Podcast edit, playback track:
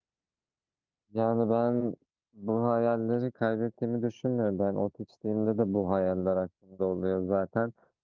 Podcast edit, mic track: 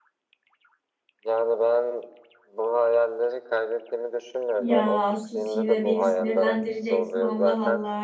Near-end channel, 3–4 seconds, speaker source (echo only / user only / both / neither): echo only